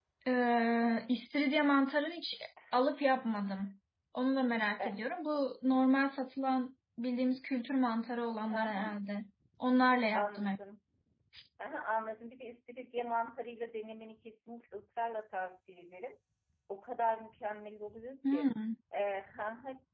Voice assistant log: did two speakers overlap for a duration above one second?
No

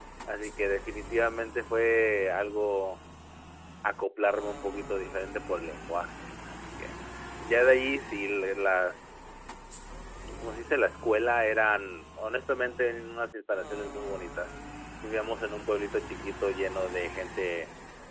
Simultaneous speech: No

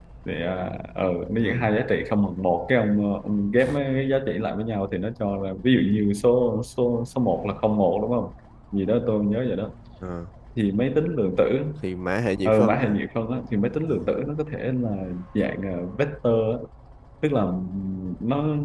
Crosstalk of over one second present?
No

